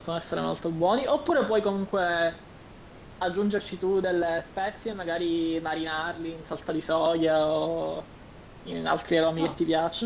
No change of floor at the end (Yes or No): Yes